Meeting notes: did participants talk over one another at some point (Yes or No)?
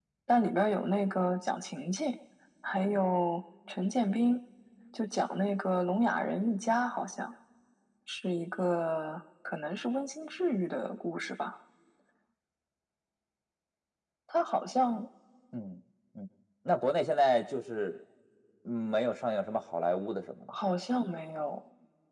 No